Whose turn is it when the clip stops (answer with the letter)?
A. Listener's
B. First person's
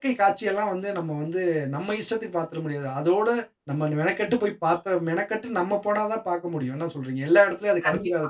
A